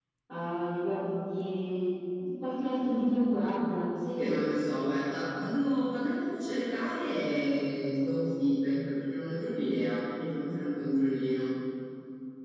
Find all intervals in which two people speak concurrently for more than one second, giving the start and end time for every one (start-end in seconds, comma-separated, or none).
none